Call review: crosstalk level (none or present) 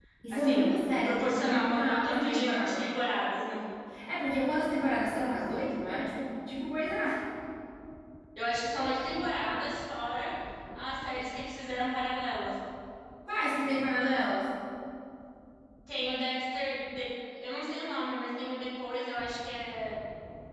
present